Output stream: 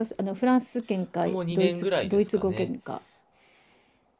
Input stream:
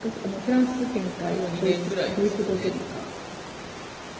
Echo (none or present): present